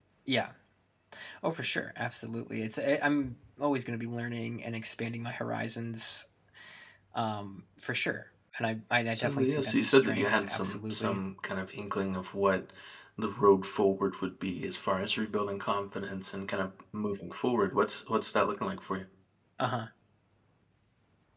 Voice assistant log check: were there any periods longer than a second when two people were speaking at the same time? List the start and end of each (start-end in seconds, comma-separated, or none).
9.2-11.2